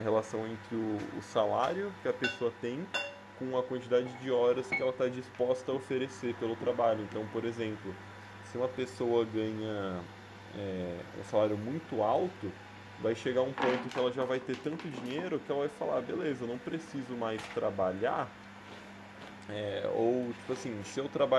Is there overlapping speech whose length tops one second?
No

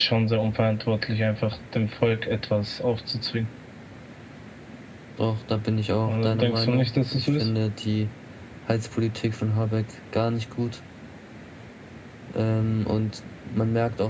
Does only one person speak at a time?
No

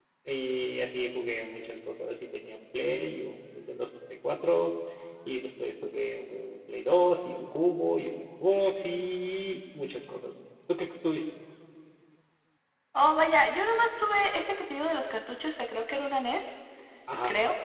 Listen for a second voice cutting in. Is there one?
No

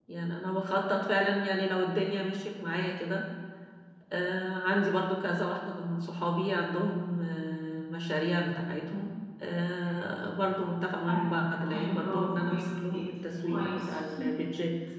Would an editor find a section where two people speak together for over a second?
Yes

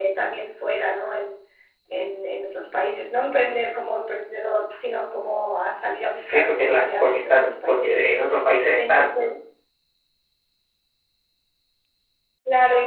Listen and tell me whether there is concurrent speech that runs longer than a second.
Yes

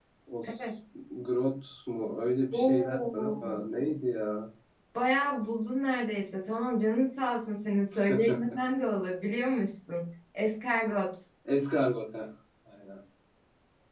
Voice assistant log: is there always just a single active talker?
No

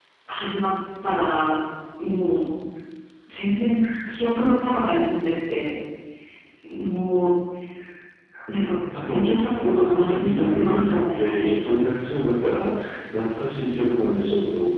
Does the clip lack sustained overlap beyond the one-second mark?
No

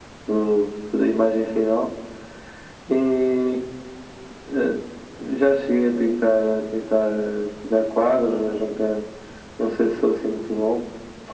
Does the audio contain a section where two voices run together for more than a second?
No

